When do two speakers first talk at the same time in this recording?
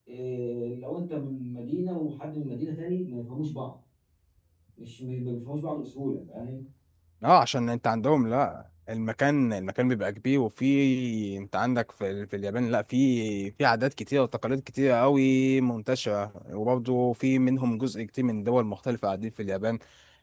none

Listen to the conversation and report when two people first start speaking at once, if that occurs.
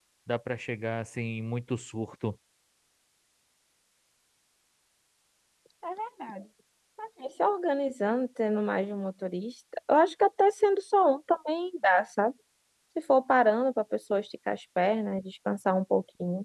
none

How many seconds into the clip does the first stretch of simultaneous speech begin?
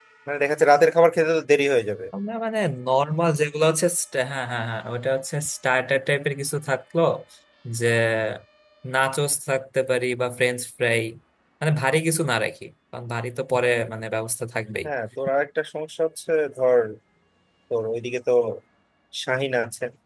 none

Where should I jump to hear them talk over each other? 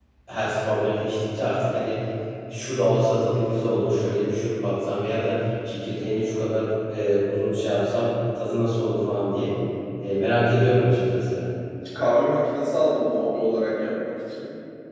none

